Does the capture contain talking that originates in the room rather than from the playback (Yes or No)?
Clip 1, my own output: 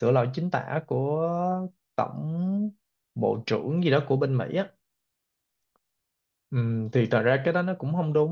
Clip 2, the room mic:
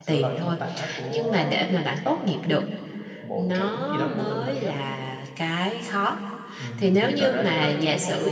Yes